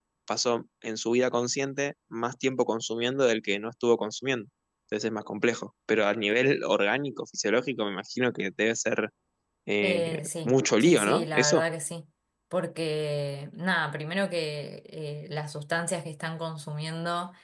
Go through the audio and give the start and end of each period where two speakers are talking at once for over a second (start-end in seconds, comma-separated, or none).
9.8-11.6